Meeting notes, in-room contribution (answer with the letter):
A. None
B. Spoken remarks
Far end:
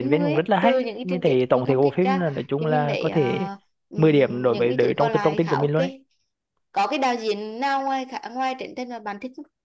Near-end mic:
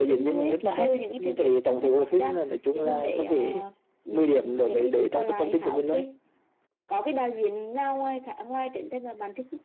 A